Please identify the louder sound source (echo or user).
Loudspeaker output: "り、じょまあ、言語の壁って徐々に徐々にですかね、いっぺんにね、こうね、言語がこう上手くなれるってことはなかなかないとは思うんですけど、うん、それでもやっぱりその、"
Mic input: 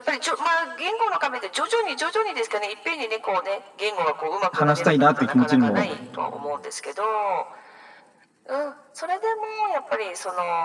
user